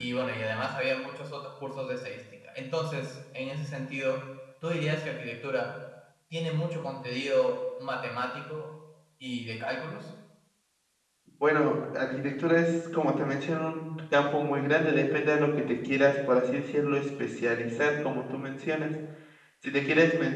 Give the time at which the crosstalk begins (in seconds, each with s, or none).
none